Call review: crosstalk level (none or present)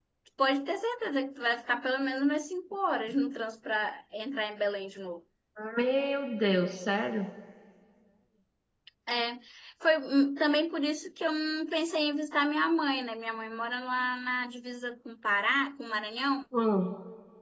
none